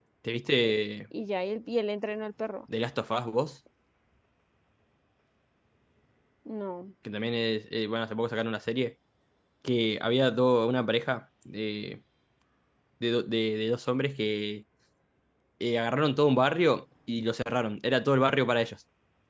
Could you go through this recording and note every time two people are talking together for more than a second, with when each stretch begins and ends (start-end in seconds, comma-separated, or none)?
none